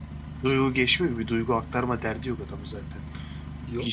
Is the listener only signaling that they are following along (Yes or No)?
Yes